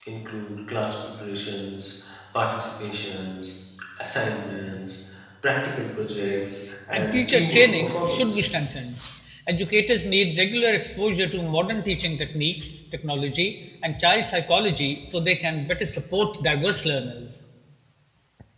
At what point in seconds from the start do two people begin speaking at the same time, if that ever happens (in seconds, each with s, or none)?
6.9 s